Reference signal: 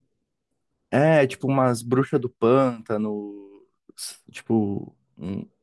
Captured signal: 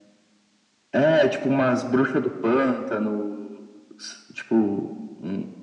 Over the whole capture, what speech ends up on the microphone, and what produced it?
echo only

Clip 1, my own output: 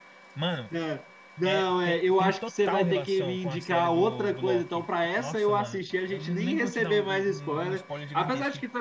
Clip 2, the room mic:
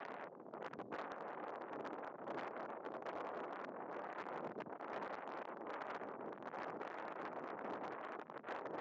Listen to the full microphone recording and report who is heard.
neither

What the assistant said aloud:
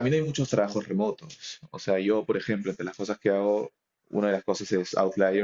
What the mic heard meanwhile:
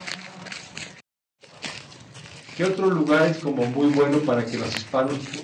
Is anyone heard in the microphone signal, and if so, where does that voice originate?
user only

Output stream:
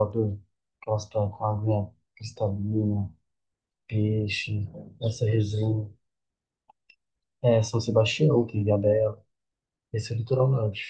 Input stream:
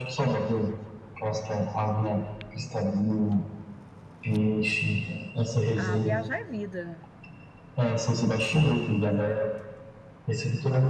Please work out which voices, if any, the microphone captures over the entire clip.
both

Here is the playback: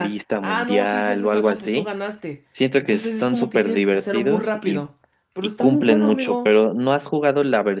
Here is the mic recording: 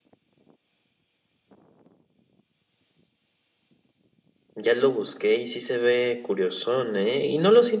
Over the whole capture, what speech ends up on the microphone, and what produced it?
user only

